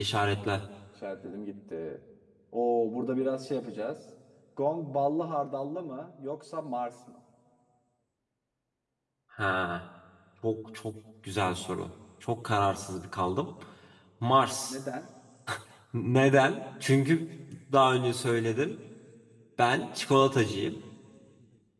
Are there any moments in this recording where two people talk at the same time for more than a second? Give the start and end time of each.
none

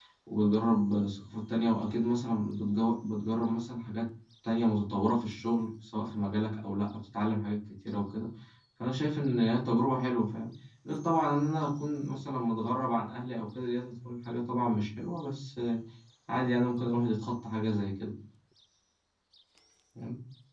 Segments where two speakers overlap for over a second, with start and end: none

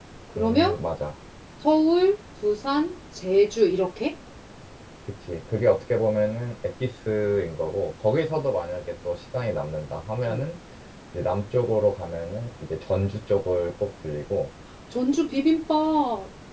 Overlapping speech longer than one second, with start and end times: none

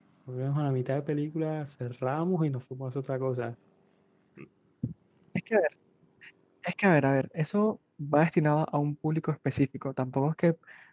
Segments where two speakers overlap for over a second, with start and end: none

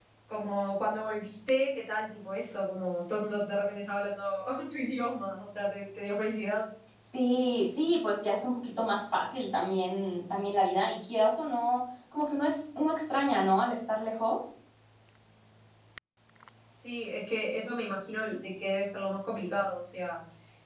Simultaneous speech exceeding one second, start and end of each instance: none

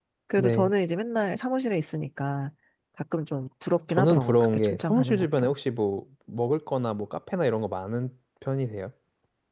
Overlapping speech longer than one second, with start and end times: 3.9-5.5

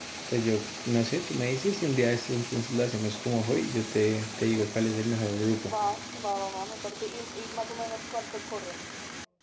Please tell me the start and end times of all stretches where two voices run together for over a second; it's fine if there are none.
none

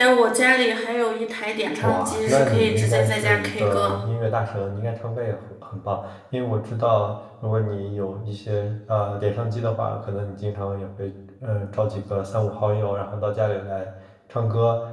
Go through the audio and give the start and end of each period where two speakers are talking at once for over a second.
1.8-4.0

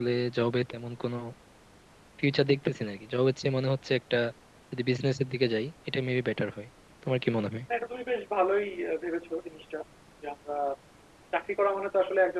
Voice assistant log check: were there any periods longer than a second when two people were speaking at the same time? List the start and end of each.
none

